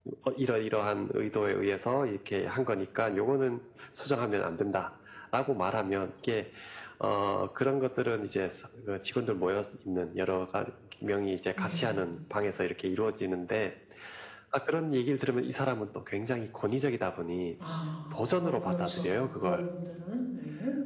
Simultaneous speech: Yes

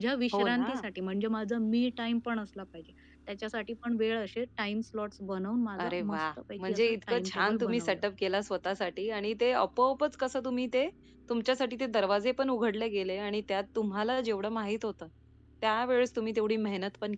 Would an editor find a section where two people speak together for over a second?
Yes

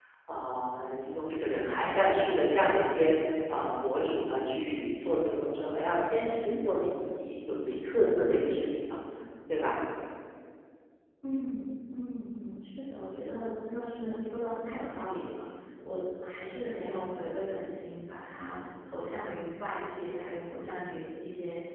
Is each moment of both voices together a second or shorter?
Yes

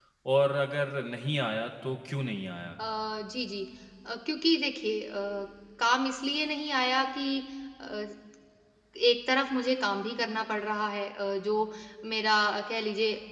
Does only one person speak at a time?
Yes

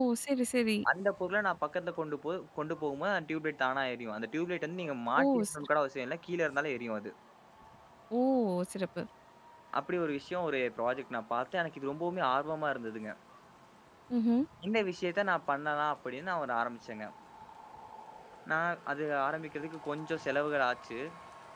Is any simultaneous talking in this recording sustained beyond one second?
No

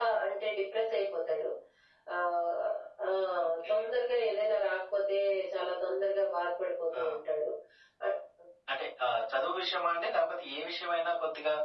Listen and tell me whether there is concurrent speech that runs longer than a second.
No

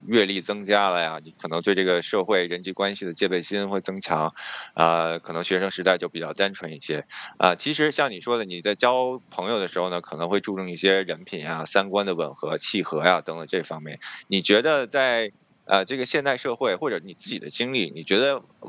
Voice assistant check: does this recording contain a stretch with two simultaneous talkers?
No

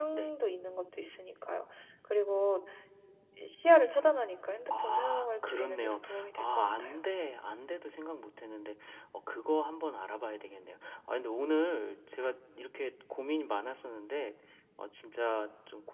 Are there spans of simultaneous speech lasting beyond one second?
Yes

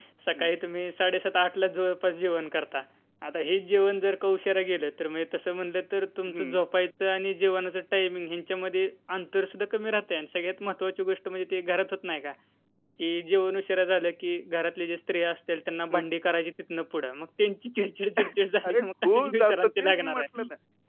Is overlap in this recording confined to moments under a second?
No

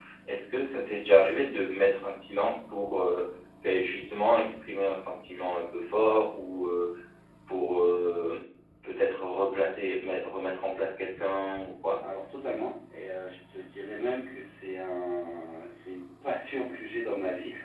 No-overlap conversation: Yes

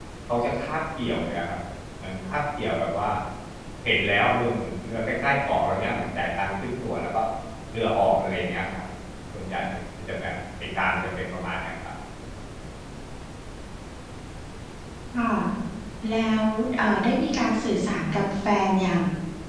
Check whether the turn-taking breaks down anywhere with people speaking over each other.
No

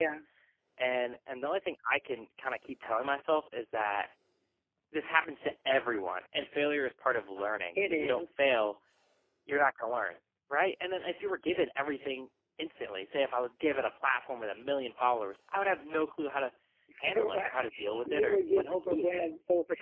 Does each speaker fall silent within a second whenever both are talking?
No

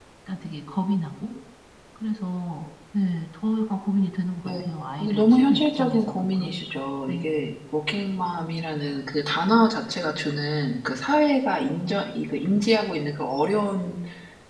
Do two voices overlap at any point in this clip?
Yes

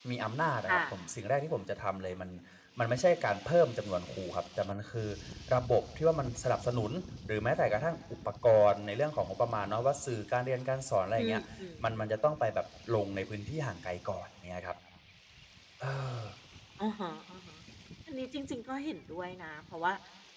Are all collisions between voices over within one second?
Yes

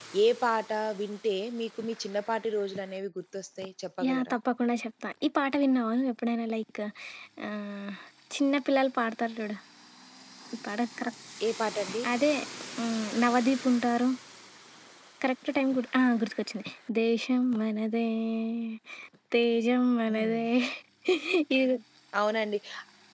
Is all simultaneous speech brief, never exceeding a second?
Yes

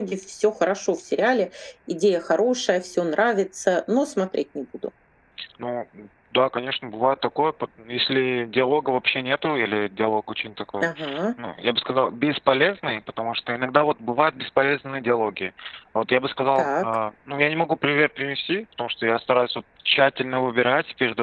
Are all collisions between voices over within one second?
Yes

